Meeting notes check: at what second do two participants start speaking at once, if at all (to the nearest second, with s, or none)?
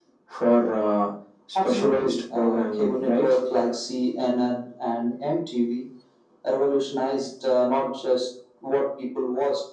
2 s